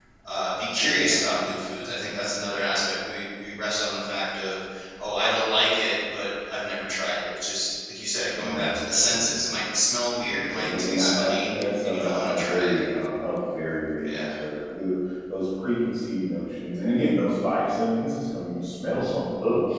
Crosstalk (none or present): present